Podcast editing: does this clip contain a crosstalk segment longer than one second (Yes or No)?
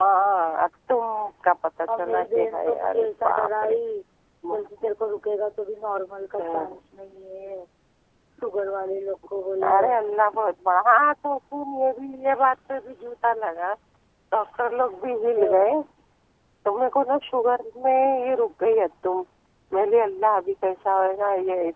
Yes